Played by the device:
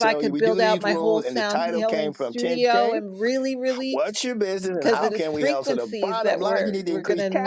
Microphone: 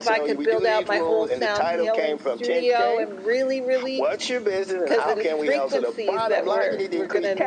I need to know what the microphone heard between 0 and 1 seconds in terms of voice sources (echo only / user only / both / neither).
echo only